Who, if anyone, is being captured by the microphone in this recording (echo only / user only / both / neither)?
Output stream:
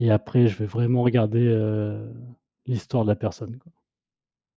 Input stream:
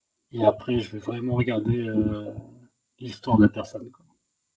echo only